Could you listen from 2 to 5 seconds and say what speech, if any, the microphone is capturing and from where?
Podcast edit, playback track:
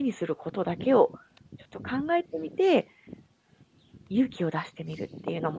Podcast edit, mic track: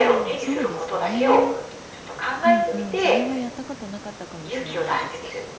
both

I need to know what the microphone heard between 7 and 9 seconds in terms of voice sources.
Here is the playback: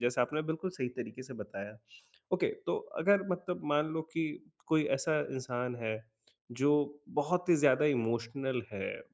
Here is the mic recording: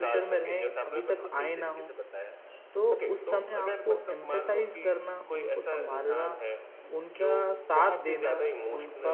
both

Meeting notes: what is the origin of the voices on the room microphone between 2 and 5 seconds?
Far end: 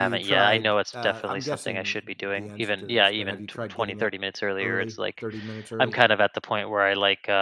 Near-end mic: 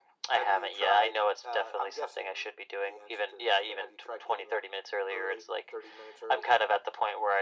echo only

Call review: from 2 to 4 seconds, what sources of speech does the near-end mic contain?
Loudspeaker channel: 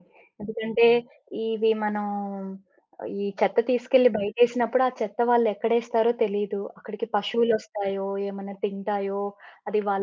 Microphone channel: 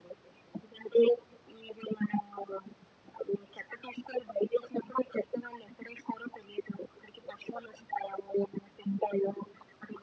echo only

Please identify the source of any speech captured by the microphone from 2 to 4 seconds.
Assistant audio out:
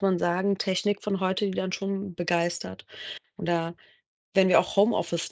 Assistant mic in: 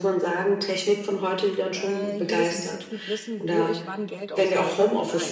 both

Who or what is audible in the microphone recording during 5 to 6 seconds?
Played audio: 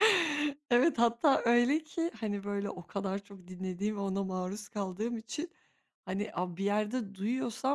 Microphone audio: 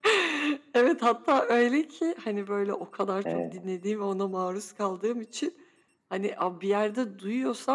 echo only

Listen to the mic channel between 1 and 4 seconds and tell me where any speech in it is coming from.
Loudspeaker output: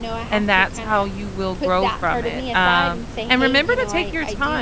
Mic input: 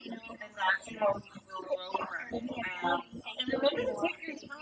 echo only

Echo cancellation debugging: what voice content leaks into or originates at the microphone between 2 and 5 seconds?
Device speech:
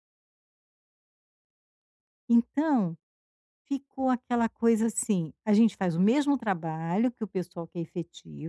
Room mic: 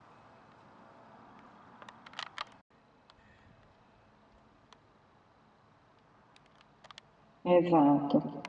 neither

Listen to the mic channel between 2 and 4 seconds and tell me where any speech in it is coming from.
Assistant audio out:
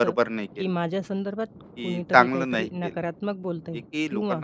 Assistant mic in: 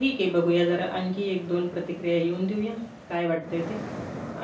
user only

